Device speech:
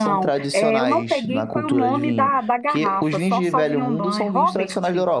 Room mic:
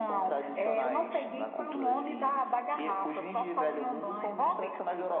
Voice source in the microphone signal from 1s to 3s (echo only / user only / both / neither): echo only